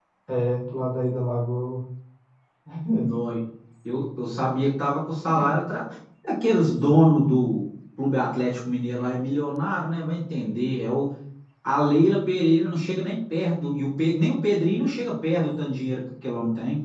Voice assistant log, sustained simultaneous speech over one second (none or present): none